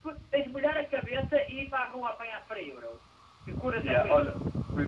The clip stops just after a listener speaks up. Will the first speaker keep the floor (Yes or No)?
No